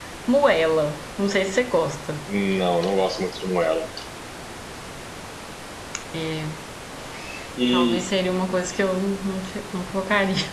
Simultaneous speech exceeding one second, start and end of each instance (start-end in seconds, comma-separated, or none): none